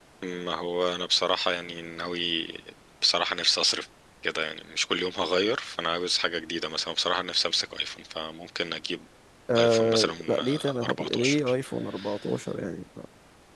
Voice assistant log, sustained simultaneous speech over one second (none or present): present